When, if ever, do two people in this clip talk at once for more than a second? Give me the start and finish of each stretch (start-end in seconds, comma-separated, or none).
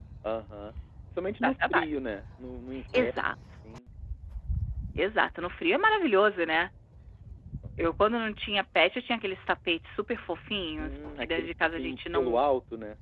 10.8-12.4